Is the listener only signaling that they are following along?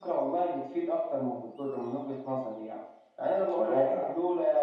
Yes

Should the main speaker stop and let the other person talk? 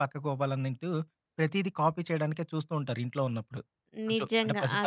Yes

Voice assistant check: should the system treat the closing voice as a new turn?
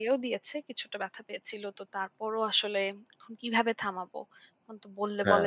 No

